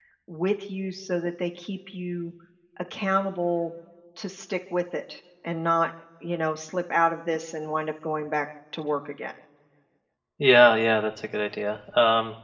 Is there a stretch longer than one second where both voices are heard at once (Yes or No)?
No